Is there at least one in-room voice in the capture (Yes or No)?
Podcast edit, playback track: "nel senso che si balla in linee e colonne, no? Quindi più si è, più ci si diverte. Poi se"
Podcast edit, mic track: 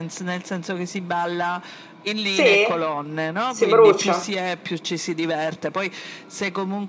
Yes